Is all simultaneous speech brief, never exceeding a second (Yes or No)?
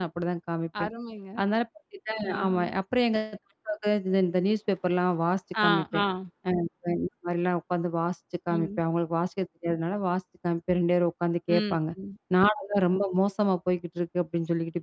Yes